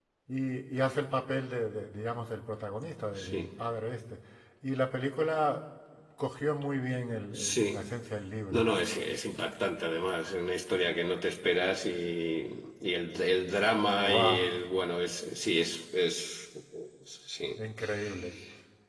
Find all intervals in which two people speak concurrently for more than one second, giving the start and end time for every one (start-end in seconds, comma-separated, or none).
none